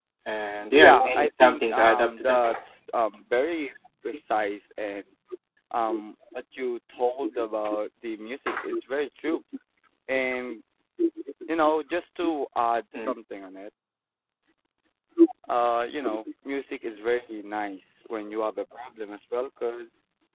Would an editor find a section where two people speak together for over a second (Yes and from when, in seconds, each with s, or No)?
Yes, from 0.7 s